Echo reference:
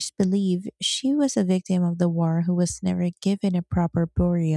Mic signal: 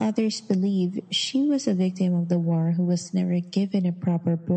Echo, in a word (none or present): present